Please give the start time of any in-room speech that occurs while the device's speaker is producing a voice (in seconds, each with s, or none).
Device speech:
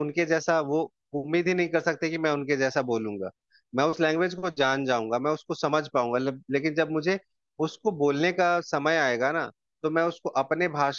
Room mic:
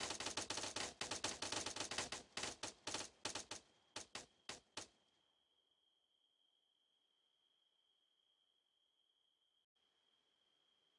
none